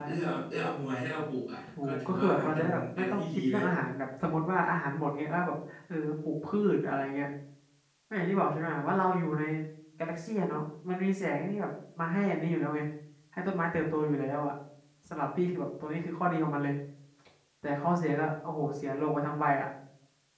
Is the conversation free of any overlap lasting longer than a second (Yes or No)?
No